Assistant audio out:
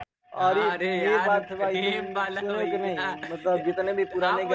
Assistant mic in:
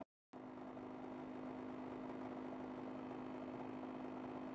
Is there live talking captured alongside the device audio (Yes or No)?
No